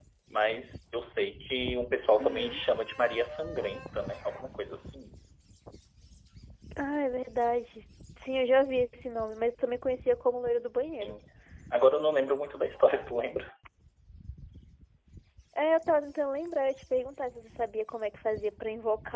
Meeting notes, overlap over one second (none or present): none